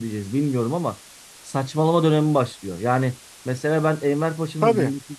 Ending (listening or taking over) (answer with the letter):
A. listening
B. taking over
A